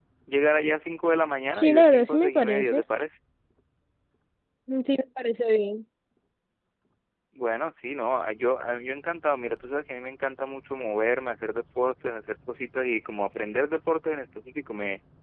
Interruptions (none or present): present